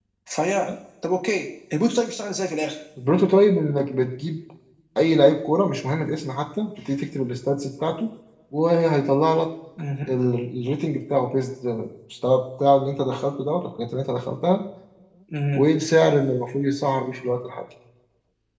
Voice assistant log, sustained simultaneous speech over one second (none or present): none